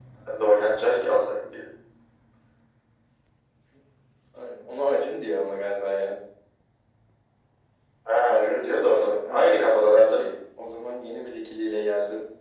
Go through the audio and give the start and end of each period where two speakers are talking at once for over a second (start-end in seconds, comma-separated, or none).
8.8-10.2